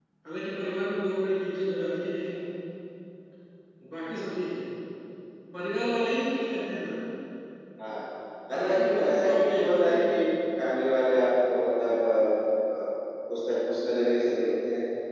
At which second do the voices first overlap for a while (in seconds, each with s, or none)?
8.6 s